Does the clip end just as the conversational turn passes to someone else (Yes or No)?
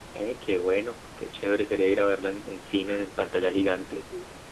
Yes